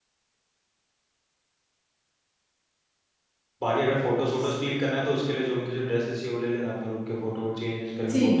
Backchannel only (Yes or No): No